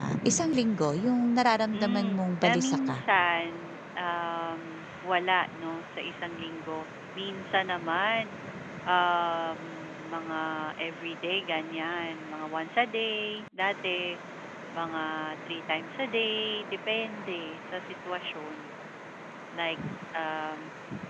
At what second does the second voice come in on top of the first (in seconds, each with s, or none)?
1.7 s